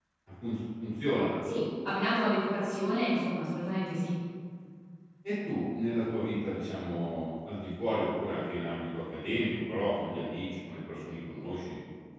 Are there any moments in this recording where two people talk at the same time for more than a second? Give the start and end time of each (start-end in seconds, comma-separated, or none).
none